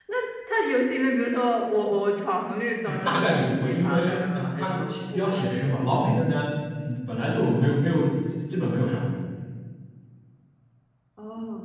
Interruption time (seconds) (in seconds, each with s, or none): 2.9 s